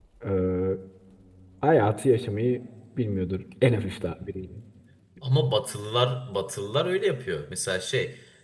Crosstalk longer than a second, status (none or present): none